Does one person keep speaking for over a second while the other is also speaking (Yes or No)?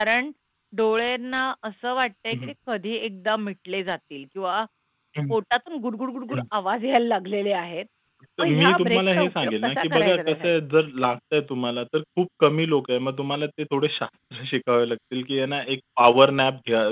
Yes